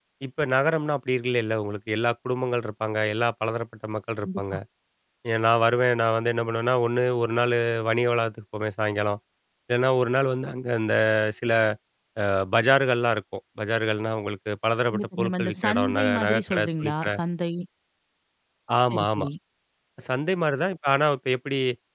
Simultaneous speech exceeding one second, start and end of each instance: 14.9-17.1

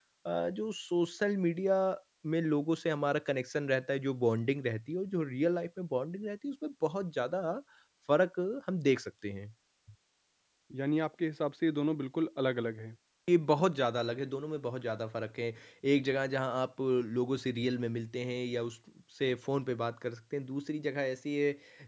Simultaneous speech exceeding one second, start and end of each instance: none

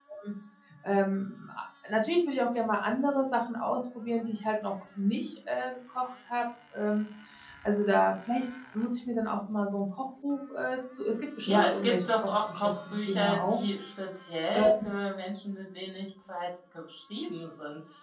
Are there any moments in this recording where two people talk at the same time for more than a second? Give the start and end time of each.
11.5-13.6

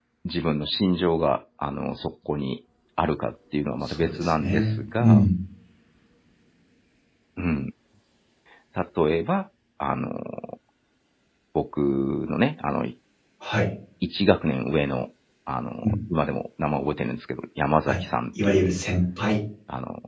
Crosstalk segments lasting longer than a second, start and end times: 3.8-5.2

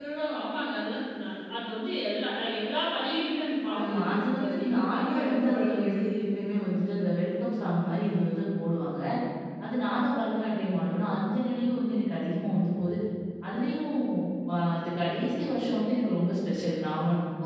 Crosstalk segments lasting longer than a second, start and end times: 3.8-6.1

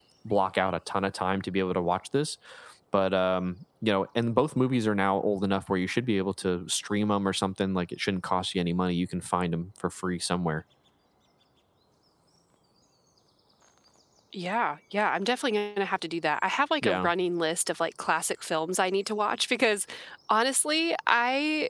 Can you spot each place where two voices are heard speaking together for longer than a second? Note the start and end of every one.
none

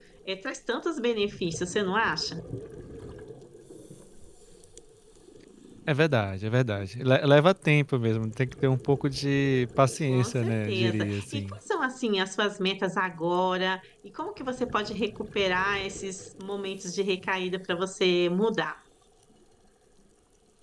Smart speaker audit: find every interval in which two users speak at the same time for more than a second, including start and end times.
10.1-11.6

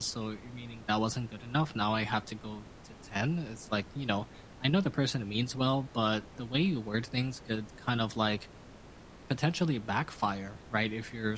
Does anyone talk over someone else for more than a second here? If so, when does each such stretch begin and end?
none

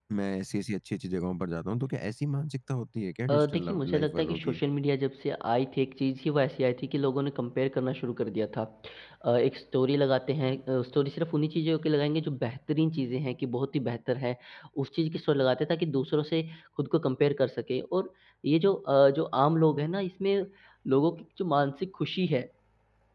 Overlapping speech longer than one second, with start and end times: 3.3-4.6

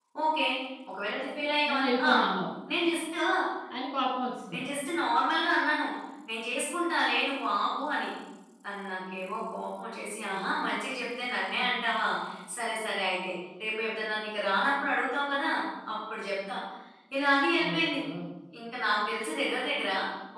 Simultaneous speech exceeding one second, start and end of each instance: none

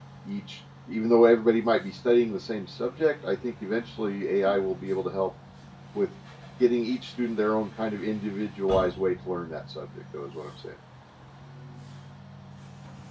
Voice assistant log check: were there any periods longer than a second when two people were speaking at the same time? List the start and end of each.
none

